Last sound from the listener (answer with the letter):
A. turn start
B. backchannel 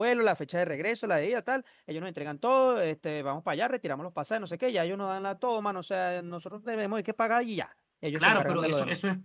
A